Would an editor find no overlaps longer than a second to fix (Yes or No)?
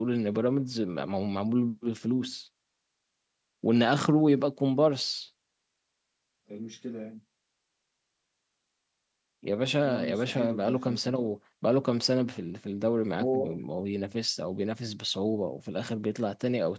No